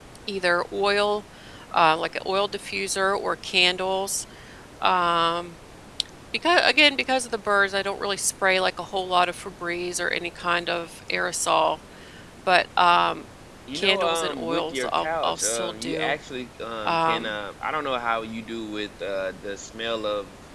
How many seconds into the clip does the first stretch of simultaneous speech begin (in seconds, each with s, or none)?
13.7 s